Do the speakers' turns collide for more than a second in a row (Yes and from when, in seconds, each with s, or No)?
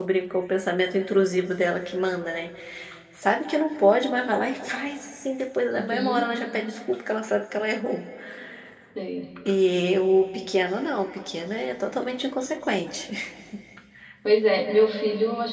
No